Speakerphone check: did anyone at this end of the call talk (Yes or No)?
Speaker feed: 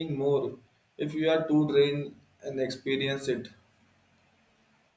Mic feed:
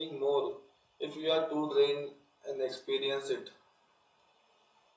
No